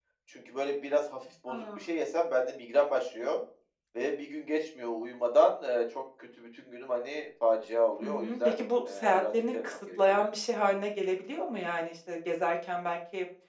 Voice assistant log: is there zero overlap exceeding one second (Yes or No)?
No